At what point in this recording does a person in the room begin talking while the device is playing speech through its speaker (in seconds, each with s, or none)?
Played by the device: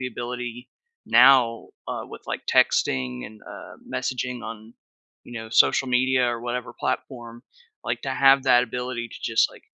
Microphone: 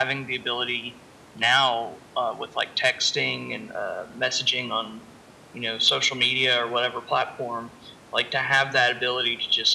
none